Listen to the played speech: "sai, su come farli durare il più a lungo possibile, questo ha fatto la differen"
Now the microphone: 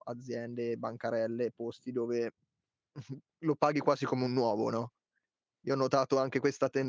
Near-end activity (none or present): present